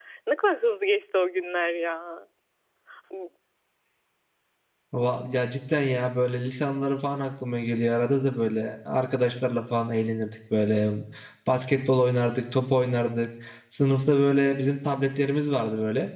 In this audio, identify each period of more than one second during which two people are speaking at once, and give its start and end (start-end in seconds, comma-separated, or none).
none